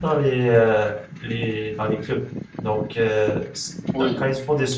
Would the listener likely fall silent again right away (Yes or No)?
Yes